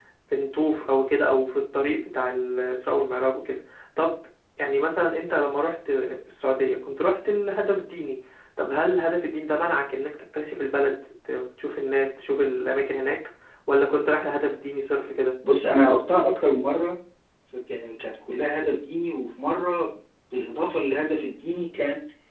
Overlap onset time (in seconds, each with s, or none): none